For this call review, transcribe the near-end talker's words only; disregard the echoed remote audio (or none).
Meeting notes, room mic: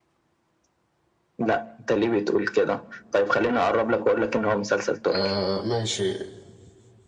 آه ماشي